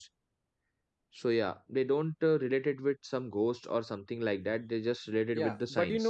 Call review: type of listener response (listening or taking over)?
taking over